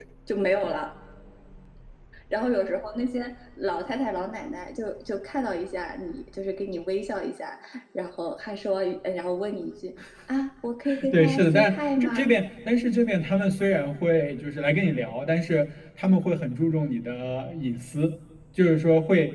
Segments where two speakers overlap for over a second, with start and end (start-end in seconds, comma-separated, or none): 11.1-12.3